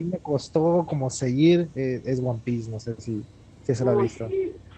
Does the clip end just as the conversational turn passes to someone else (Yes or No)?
Yes